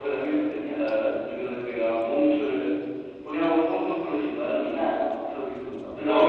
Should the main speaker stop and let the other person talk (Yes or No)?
Yes